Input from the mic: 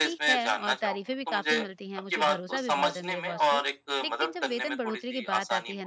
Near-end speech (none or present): present